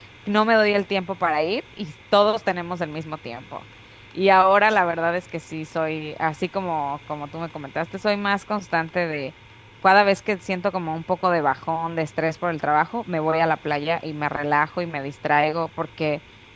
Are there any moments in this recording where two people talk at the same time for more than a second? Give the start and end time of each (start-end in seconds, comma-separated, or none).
none